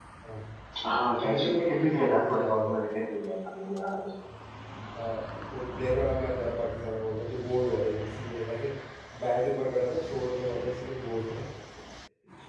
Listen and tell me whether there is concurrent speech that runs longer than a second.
Yes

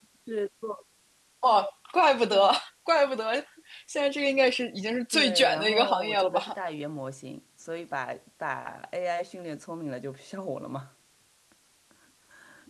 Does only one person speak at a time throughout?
No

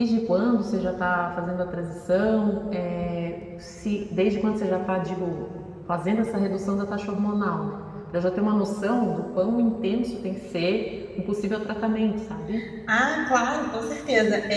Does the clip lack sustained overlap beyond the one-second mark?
Yes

